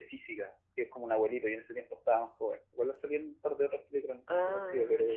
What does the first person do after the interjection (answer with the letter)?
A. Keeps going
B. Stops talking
B